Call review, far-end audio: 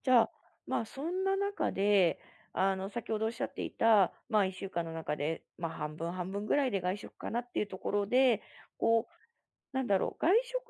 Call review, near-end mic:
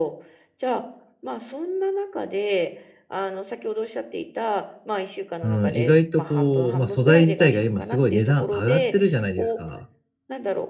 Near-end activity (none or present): present